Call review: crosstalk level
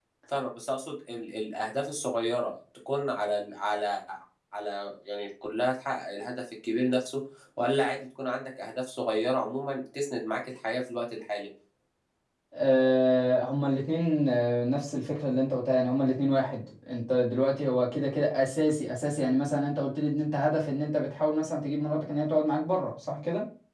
none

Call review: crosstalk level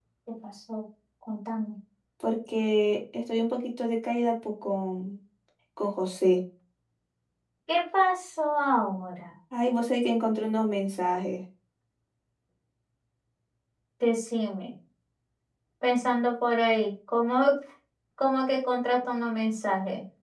none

